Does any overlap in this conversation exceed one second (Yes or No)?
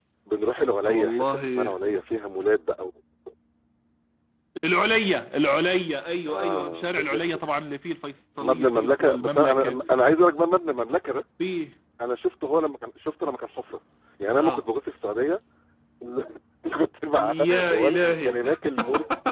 Yes